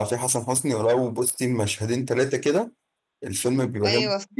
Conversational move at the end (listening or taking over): listening